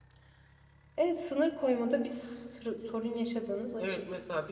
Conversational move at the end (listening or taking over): taking over